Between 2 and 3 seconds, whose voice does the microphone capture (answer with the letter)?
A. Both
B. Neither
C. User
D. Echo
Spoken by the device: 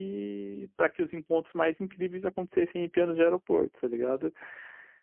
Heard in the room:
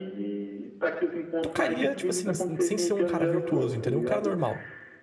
A